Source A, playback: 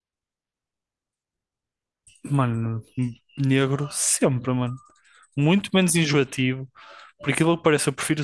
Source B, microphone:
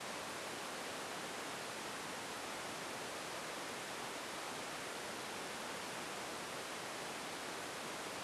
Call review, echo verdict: none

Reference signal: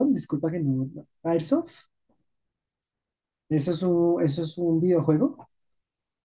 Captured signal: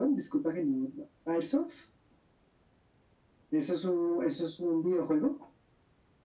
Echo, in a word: present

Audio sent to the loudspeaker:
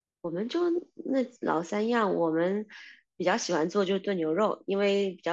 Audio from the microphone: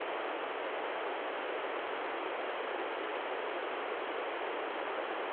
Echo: none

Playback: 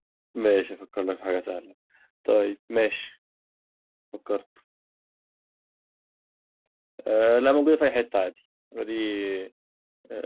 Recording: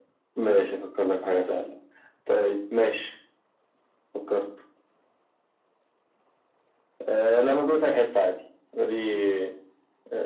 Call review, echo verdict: present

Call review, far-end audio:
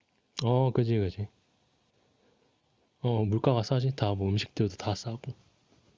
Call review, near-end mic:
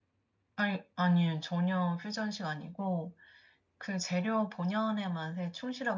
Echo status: none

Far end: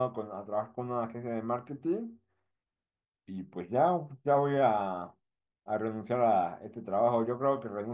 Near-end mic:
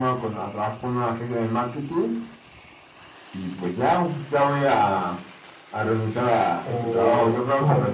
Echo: present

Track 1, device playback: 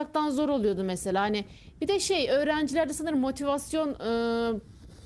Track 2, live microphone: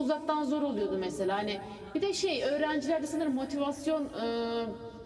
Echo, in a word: present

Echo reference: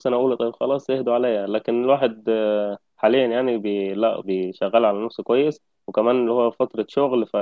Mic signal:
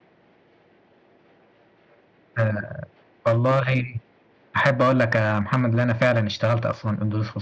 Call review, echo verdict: none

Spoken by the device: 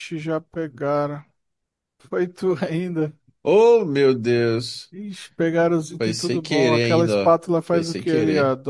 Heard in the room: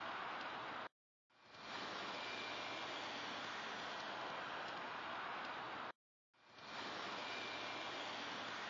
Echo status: none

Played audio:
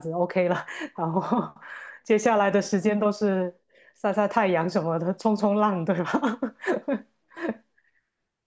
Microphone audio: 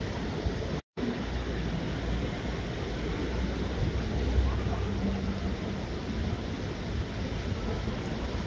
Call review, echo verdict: none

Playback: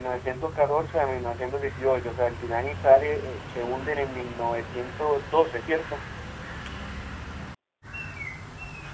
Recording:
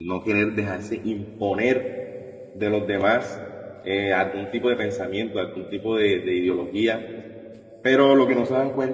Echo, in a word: none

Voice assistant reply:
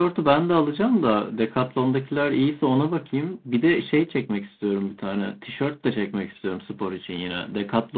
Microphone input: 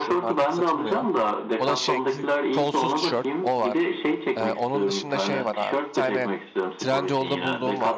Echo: present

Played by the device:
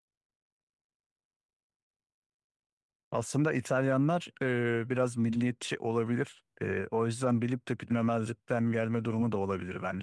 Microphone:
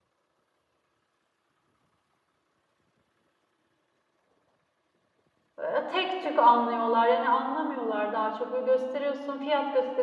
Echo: none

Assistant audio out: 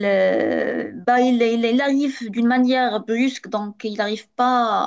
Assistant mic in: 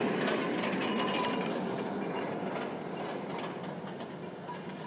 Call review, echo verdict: none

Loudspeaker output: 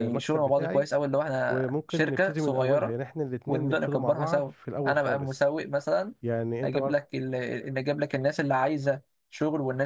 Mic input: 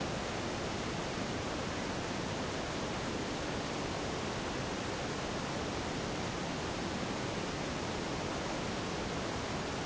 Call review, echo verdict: none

